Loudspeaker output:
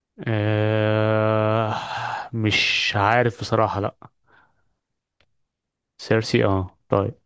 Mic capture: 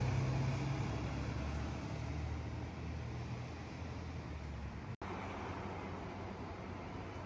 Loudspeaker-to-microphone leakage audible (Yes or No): No